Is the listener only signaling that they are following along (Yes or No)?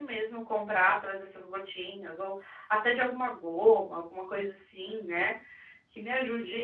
No